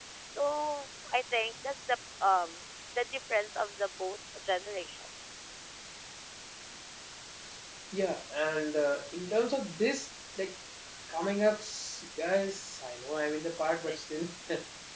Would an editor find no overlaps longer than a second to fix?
Yes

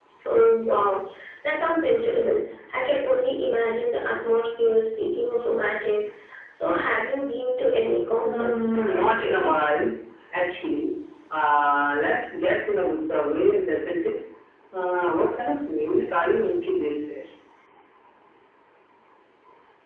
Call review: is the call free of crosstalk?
No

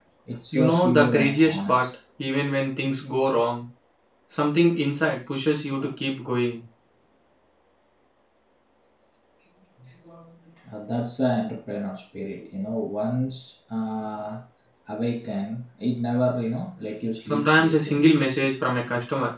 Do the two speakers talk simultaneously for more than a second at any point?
Yes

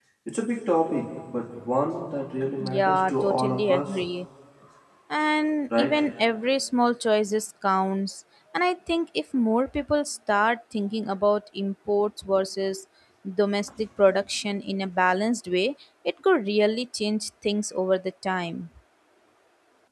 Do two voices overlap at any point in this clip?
Yes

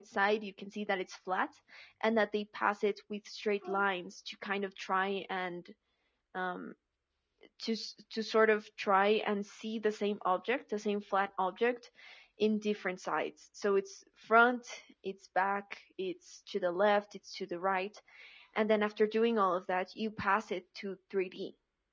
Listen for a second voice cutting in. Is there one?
No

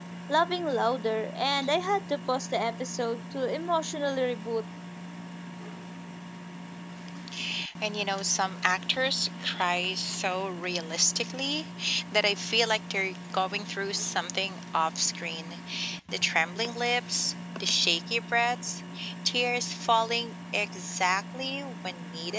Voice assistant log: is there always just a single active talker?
Yes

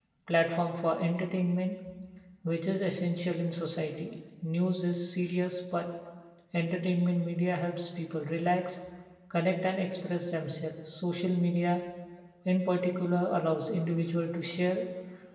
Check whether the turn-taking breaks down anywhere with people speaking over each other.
No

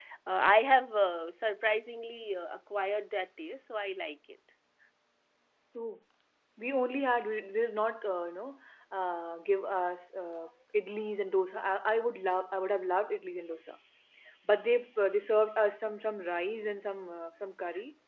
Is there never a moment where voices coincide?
Yes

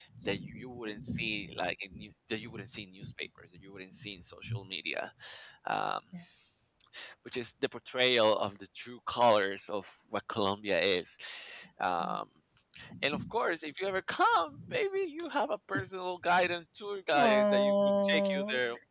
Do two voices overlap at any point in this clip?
Yes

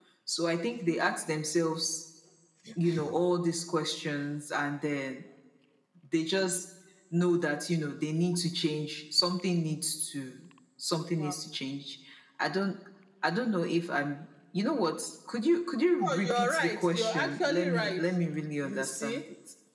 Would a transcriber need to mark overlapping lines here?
Yes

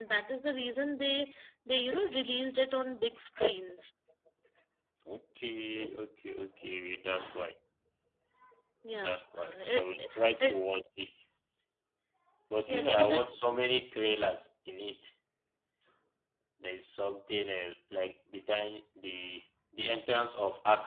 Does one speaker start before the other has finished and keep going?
Yes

